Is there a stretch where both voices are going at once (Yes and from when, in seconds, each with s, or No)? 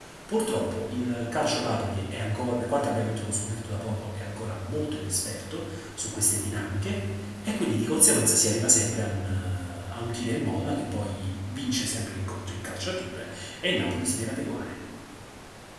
No